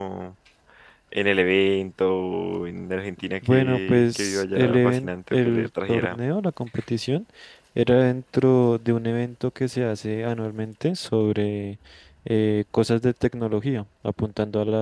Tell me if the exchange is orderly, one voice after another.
No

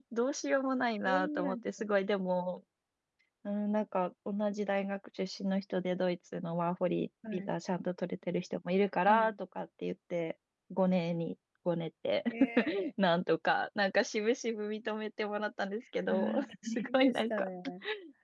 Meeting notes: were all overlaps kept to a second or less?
No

